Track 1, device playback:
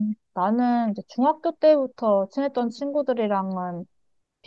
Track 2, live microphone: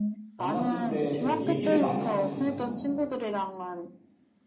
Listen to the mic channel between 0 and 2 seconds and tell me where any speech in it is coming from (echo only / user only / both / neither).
both